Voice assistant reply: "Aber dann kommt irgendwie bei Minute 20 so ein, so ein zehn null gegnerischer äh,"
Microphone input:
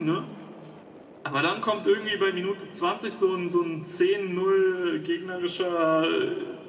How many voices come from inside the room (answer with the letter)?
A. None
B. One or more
A